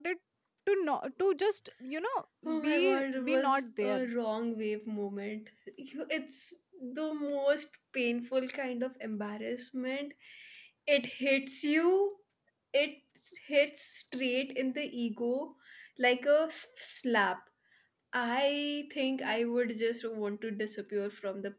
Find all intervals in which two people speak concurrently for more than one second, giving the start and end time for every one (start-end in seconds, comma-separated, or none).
2.6-4.0